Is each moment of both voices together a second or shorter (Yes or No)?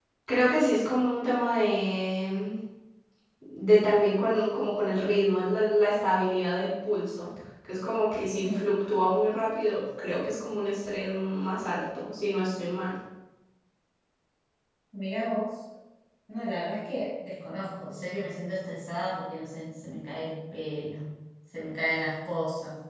Yes